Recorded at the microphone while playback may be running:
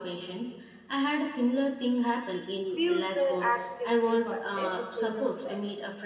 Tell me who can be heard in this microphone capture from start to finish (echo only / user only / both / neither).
both